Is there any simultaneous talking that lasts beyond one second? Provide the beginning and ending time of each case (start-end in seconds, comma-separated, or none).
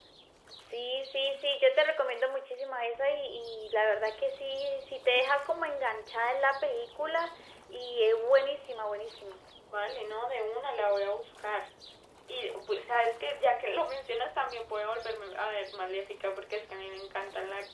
none